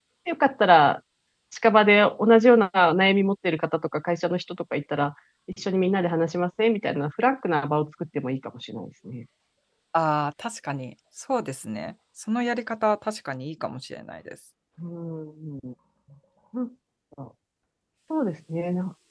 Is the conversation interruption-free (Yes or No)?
Yes